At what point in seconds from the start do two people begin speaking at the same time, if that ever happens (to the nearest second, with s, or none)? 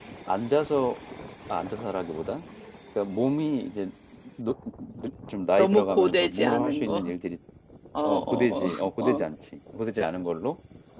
6 s